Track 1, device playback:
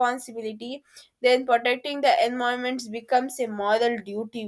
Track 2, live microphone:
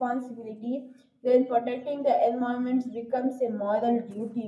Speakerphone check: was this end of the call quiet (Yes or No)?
Yes